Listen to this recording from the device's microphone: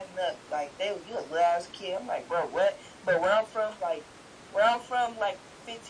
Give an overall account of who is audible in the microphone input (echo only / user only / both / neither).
echo only